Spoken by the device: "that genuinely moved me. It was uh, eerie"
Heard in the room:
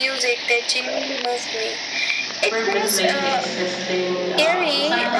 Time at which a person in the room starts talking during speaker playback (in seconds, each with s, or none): 2.5 s